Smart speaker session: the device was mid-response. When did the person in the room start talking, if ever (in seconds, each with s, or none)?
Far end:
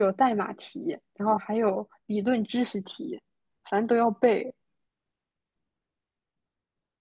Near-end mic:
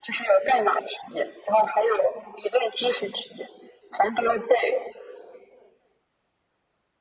none